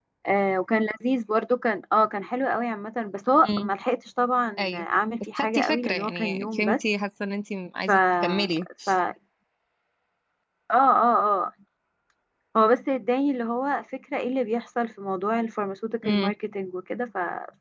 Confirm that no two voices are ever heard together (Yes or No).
No